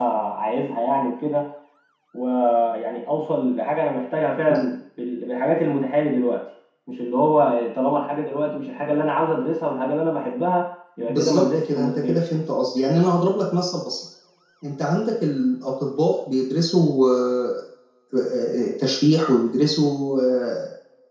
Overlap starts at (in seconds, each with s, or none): 11.1 s